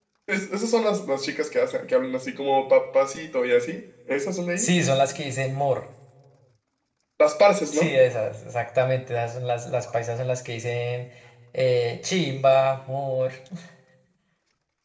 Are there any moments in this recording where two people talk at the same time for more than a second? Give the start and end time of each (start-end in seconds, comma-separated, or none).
none